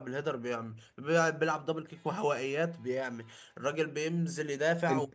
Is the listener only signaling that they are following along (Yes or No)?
Yes